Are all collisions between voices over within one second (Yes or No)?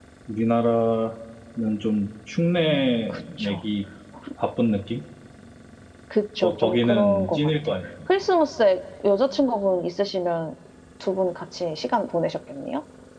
No